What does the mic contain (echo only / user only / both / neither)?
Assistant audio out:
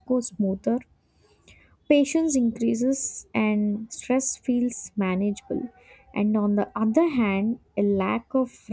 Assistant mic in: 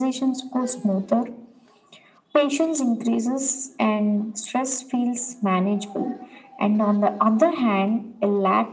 echo only